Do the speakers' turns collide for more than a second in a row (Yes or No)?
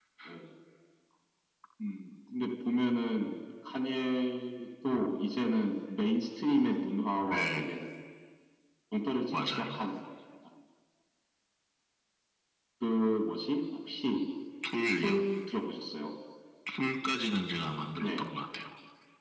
No